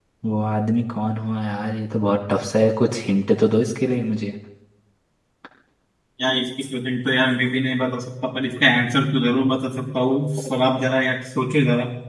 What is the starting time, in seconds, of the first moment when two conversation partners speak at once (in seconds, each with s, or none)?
none